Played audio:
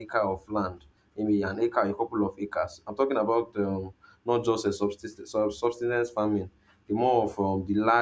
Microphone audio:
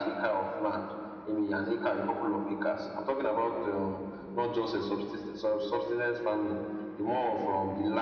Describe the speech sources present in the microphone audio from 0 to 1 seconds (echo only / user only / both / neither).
echo only